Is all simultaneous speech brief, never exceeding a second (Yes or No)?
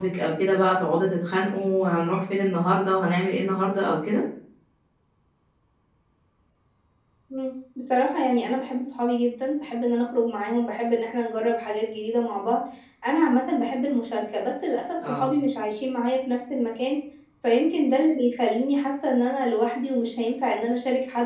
Yes